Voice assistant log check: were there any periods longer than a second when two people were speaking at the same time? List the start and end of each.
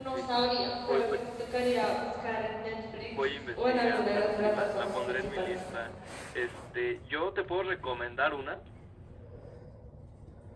3.1-5.6

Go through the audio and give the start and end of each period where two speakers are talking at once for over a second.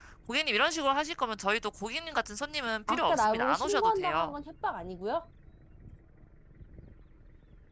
2.9-4.3

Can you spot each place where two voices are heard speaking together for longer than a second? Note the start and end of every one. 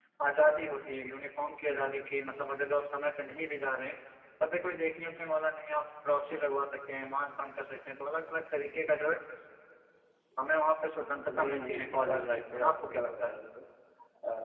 11.3-13.4

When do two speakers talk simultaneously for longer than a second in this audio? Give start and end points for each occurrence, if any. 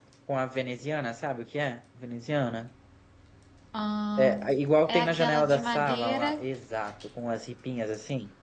4.9-6.4

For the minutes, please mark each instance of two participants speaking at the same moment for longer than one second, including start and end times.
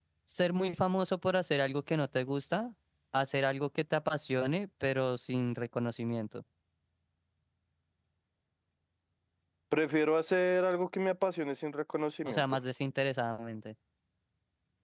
none

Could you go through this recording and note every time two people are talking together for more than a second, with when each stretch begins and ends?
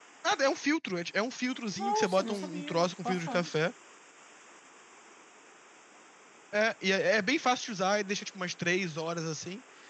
1.7-3.5

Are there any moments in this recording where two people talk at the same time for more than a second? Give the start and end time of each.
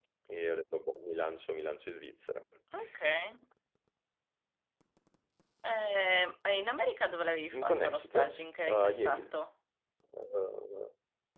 7.5-9.3

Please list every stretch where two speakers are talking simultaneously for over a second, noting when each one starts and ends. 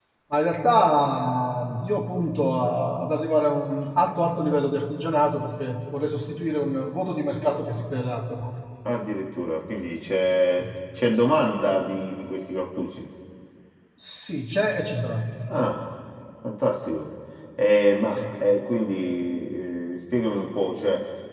none

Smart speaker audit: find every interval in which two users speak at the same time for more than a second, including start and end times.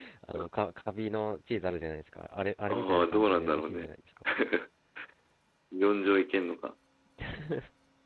2.7-3.9

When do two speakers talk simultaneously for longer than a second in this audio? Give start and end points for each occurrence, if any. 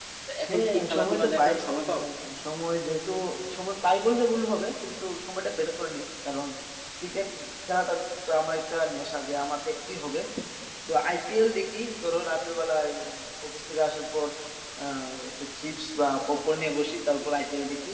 0.5-2.0

